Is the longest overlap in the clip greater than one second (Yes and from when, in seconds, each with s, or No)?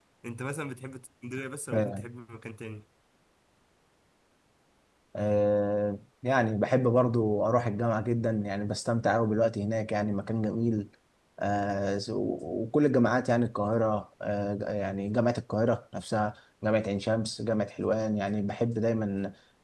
No